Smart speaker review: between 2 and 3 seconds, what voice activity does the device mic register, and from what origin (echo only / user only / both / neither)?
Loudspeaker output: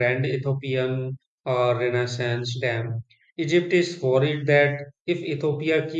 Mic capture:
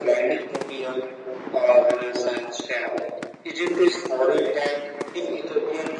echo only